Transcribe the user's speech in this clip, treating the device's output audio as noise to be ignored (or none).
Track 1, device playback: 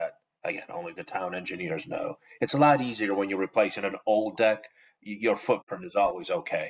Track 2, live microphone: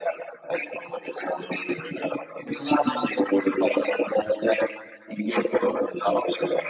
none